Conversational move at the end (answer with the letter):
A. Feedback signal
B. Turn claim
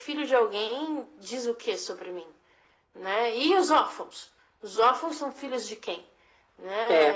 A